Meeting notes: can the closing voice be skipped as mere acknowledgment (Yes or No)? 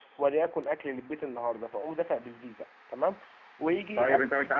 No